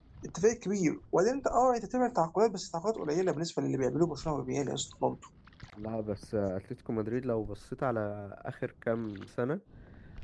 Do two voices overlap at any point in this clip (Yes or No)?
No